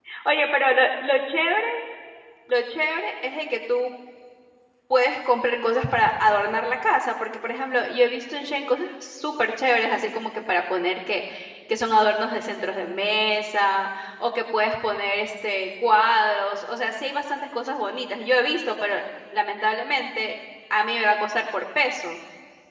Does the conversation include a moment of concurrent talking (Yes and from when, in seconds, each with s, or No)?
No